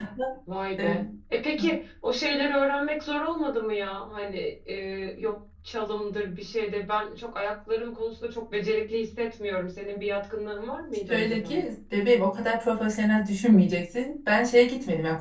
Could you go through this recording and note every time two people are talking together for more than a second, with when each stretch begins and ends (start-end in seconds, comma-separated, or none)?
none